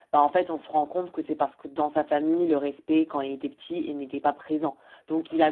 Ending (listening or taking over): listening